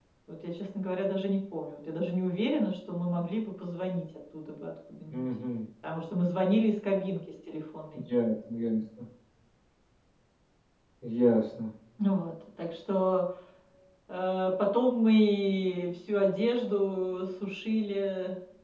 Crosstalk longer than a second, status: none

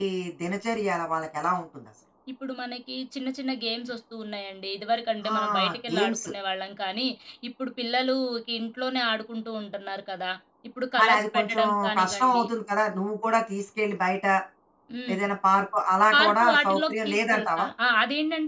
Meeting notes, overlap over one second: present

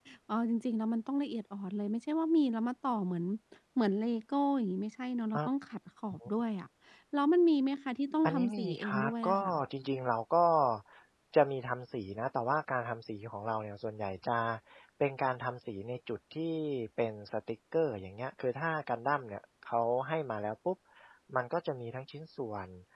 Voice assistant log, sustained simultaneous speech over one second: present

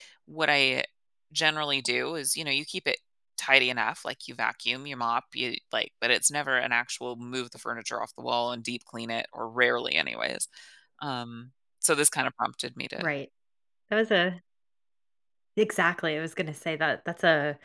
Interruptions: none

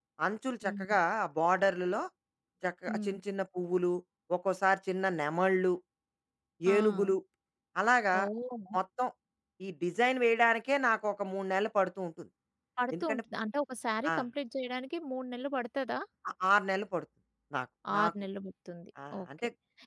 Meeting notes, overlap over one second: none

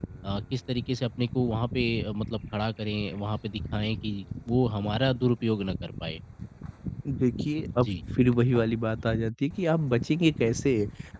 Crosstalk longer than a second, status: none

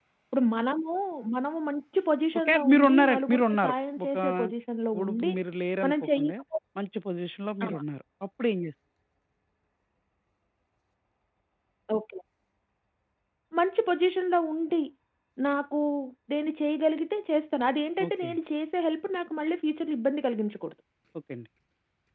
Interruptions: present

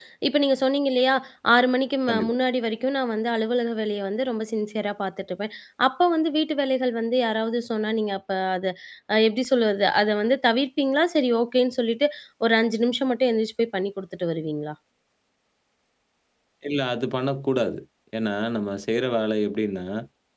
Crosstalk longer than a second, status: none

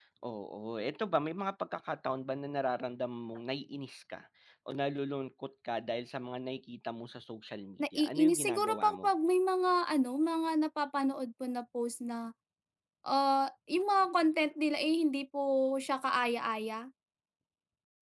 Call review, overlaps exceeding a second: present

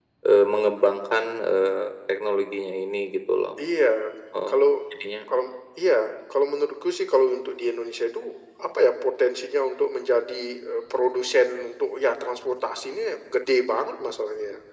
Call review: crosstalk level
none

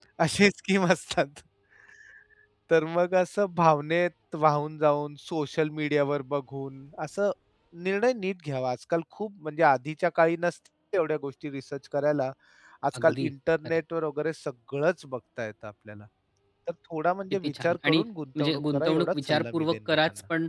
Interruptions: present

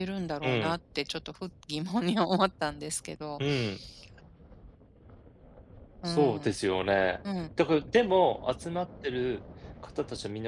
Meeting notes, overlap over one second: none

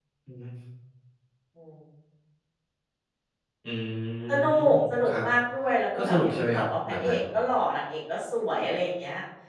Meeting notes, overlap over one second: present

